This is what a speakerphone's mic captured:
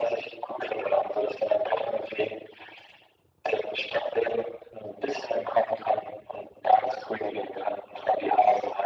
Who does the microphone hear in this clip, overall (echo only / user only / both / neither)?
echo only